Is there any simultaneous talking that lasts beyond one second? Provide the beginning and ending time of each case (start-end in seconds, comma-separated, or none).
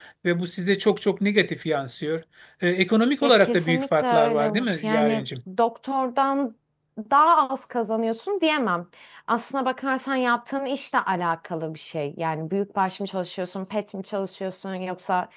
3.2-5.2